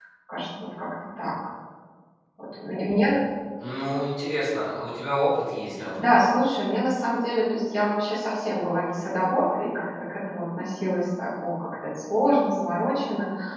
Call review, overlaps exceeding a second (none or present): none